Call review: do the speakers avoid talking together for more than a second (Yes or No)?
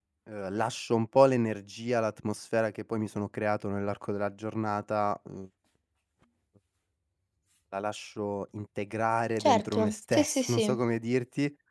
No